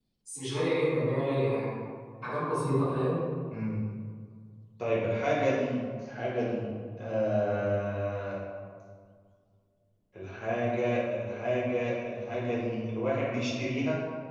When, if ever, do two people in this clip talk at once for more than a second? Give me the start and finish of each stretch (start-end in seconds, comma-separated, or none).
none